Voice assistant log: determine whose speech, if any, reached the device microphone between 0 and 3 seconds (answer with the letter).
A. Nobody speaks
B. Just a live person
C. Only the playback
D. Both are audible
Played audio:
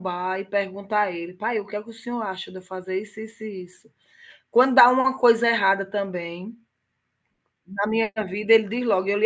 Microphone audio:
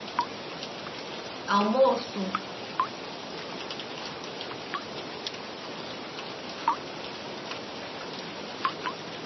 B